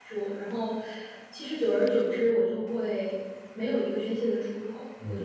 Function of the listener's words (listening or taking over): taking over